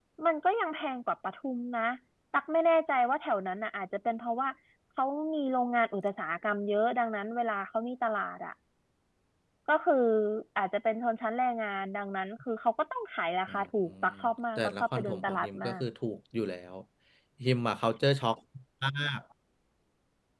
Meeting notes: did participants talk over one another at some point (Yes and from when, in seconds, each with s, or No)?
Yes, from 14.6 s